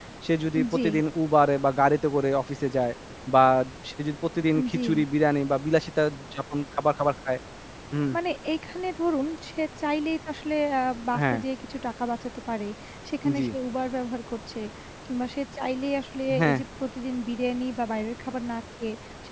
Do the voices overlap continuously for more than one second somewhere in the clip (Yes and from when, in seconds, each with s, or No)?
No